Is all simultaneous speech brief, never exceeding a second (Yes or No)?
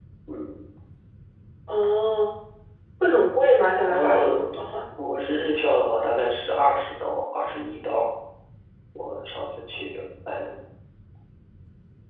Yes